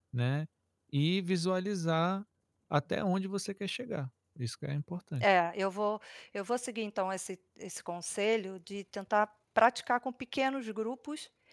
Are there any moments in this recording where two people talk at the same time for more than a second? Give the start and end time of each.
none

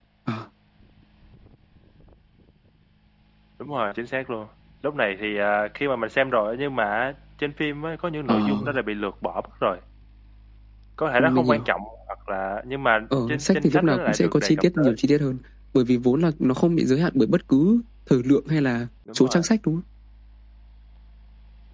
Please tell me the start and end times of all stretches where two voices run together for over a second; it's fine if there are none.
13.3-14.9

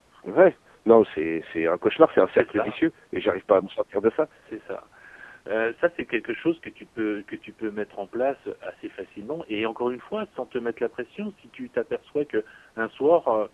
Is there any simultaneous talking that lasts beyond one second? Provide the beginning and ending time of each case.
none

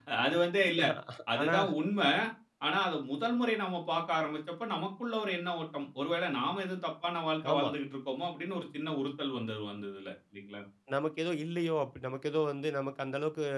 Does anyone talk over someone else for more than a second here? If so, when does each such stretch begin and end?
none

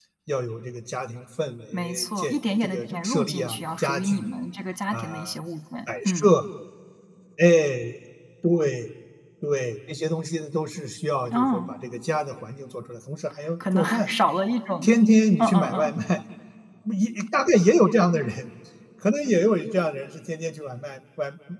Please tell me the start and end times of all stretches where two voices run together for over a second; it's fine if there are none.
1.7-4.3

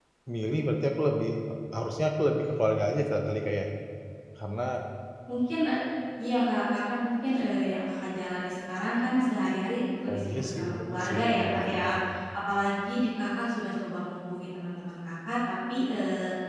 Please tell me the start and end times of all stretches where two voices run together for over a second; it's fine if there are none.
10.1-11.9

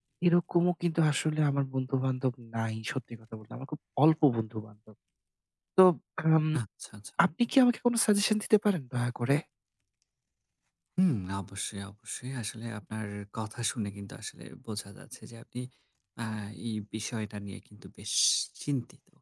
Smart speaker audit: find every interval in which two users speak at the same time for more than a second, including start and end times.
none

